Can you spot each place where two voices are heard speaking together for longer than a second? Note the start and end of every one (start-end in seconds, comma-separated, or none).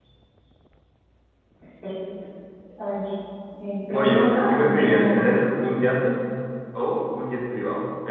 3.9-5.5